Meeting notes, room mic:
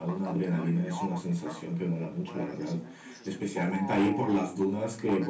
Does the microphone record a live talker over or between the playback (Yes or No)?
Yes